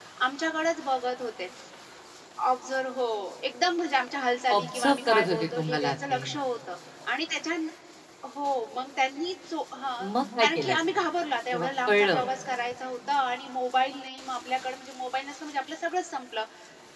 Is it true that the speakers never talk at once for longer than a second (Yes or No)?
No